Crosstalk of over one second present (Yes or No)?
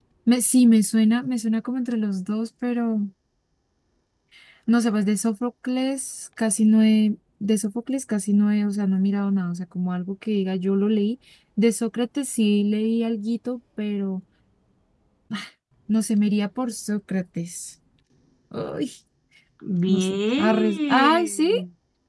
Yes